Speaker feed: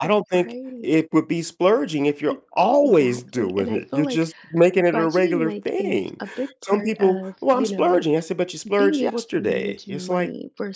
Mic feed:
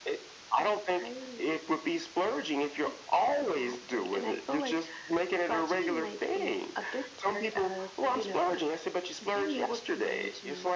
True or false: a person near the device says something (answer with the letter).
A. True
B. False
B